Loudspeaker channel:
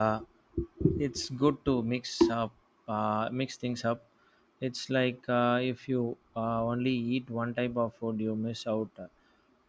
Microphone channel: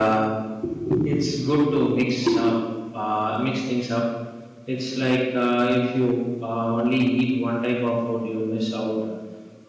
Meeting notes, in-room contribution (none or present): none